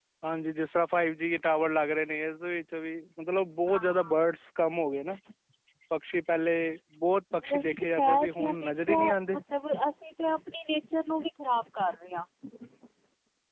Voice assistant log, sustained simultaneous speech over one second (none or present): present